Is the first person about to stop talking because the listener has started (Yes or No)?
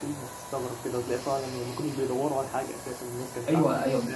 Yes